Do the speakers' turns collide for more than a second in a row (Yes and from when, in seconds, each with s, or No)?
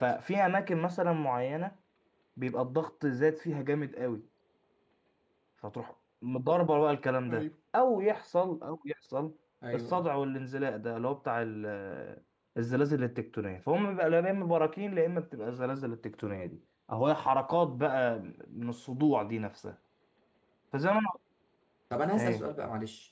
No